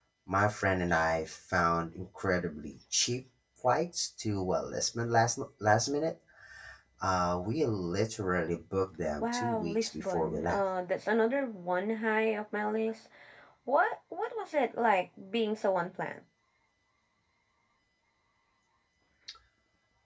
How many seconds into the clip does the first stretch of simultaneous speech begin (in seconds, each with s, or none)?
9.2 s